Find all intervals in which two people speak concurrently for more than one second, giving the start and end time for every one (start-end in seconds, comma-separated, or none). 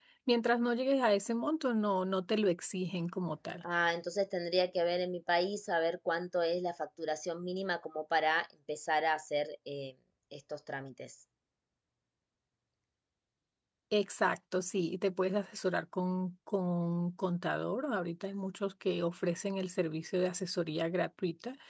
none